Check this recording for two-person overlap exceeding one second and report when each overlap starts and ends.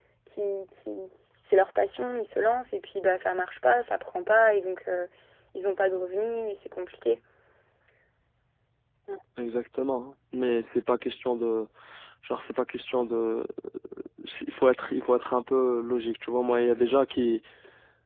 none

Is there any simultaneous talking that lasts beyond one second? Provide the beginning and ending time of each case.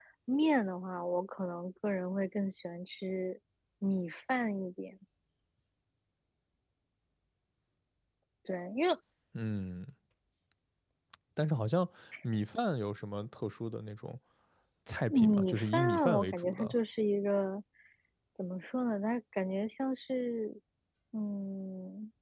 15.1-16.7

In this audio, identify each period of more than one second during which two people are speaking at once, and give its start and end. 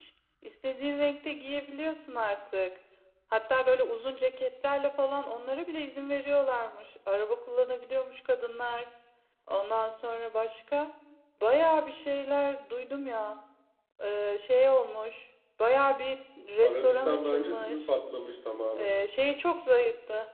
16.6-17.9

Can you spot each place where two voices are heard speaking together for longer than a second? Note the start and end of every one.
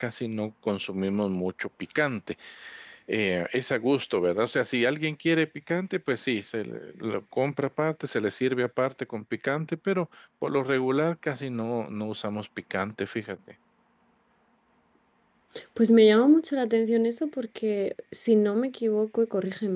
none

